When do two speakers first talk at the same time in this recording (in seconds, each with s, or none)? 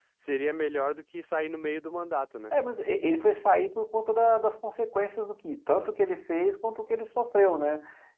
none